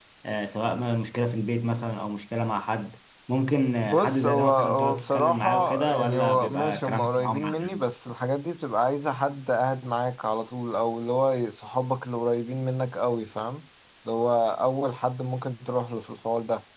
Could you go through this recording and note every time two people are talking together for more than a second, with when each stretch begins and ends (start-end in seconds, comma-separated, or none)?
3.9-7.8